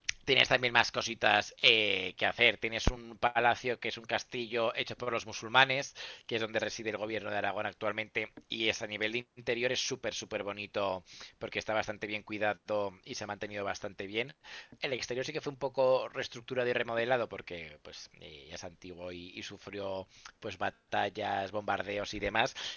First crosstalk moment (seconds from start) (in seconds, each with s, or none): none